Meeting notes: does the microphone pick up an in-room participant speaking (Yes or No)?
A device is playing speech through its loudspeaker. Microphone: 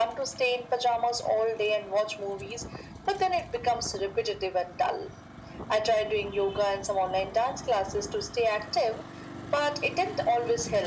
No